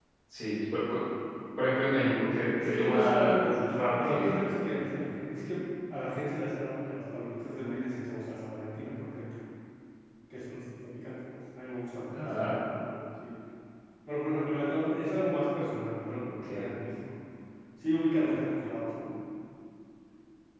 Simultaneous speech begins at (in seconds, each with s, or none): 2.6 s